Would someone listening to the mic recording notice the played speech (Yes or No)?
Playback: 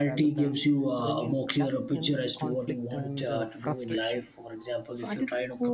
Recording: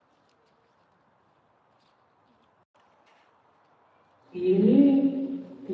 No